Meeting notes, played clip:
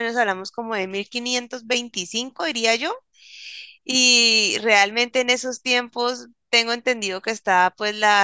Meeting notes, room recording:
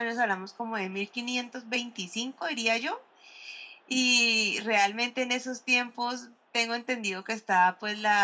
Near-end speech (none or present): none